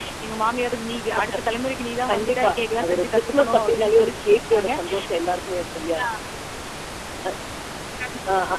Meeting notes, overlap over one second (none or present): present